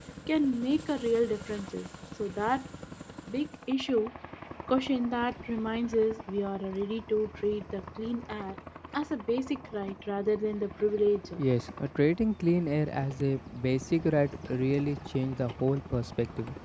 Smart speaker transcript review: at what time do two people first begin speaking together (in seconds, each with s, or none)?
none